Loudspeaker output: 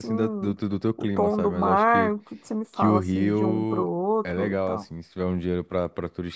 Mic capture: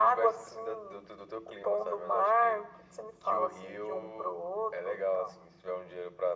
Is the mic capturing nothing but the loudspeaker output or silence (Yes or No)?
Yes